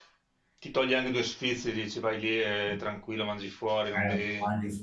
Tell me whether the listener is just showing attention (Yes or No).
No